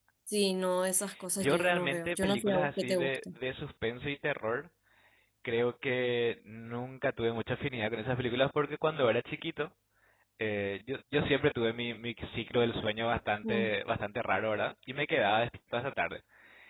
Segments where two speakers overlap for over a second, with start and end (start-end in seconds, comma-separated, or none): 1.4-3.2